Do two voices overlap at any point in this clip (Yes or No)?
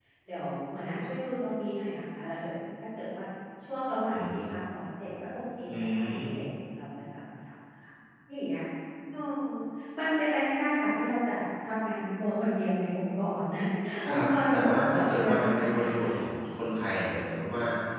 Yes